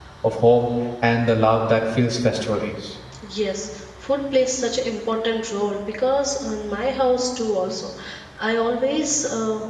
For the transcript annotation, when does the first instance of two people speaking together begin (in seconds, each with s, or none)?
none